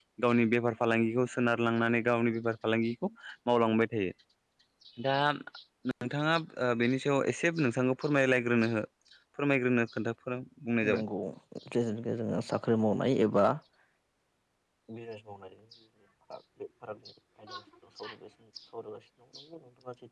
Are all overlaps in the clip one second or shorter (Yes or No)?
Yes